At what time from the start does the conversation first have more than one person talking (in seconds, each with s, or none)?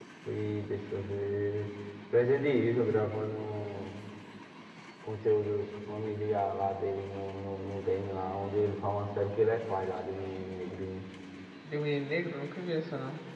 none